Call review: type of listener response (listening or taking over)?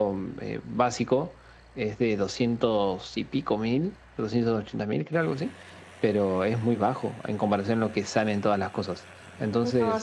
listening